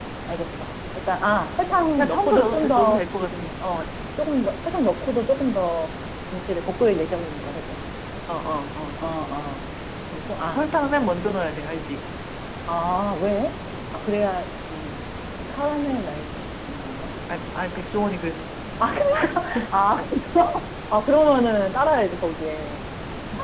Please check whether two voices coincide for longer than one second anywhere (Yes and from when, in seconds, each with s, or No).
Yes, from 2.0 s